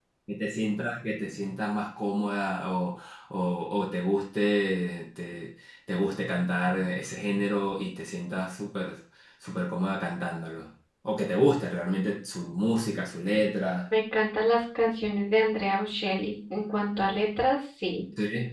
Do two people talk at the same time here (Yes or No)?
No